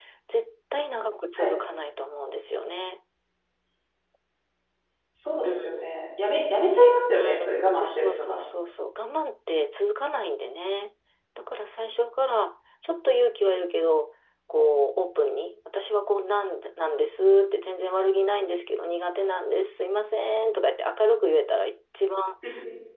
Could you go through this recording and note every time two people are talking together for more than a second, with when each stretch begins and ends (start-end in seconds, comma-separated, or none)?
7.1-8.4